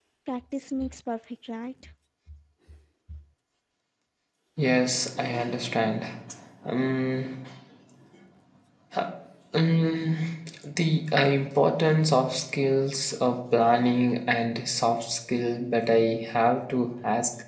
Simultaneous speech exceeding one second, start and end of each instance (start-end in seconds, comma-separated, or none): none